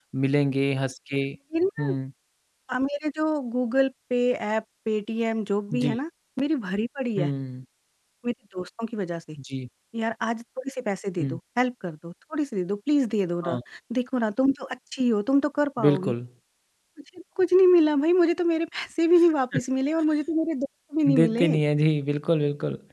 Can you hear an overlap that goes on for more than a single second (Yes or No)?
No